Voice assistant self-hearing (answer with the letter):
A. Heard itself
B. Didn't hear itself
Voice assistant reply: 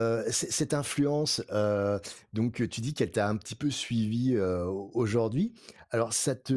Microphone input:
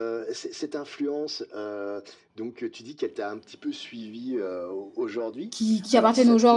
A